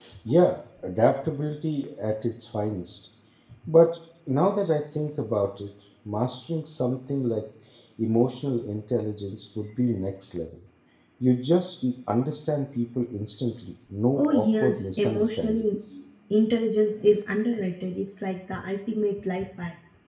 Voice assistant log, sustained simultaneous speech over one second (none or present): present